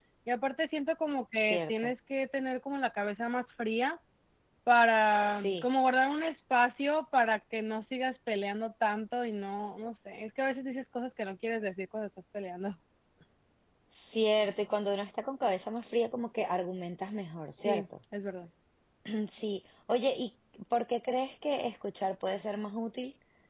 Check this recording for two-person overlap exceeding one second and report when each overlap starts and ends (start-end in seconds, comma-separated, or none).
none